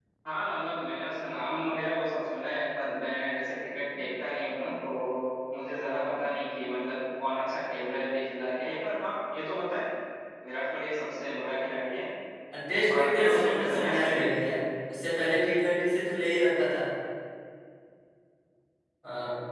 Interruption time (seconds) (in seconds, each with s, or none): 12.9 s